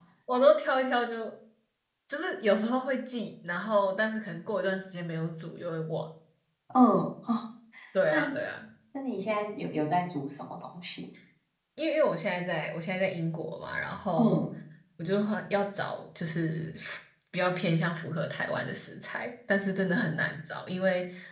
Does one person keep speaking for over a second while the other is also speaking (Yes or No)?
No